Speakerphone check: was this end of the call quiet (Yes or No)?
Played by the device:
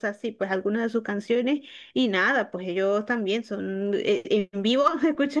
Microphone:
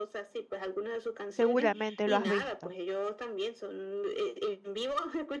No